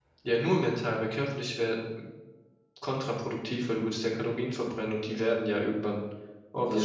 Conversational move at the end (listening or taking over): listening